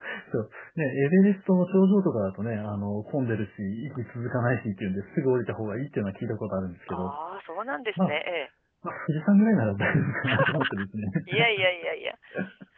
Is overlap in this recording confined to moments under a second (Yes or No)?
Yes